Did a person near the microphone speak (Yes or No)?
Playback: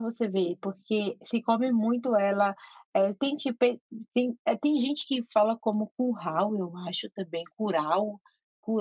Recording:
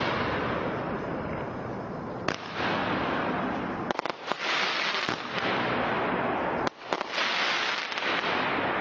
No